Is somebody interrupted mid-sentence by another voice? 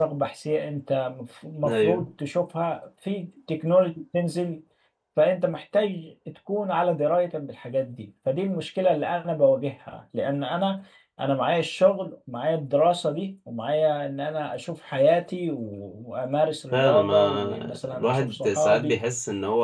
Yes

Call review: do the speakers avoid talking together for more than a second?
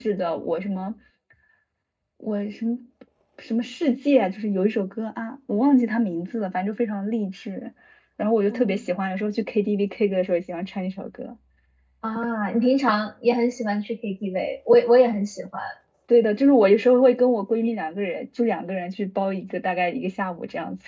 Yes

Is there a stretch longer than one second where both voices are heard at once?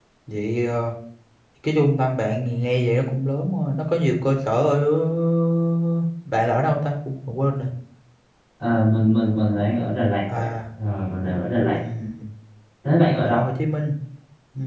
No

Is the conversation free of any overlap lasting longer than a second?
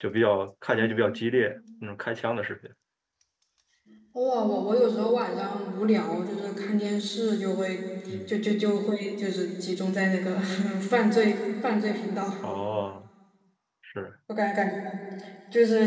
Yes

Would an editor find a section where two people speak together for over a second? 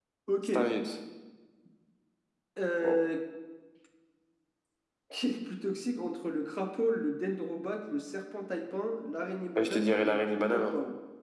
Yes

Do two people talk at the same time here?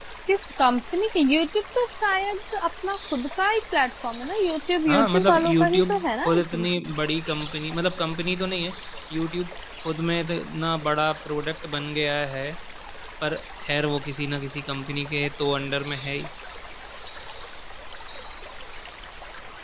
Yes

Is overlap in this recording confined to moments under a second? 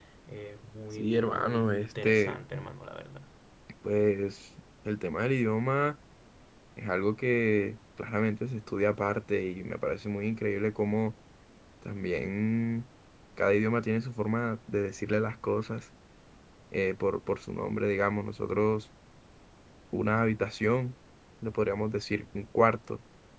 No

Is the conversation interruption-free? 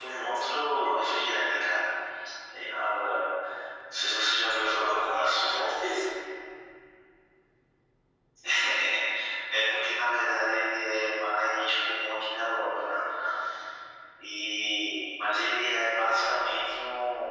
No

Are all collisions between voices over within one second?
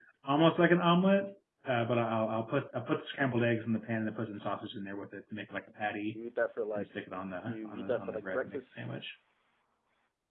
No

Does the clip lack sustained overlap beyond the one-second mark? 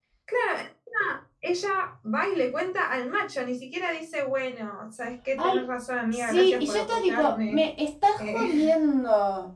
No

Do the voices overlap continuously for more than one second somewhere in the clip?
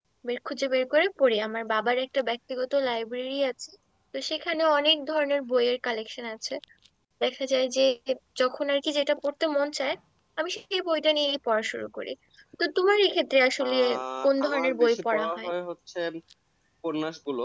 Yes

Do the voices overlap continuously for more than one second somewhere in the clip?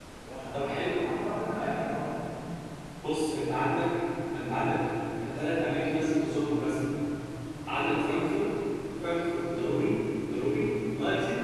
No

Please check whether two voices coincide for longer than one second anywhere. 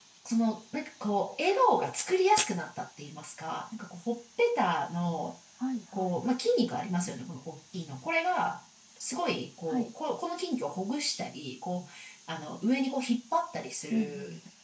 No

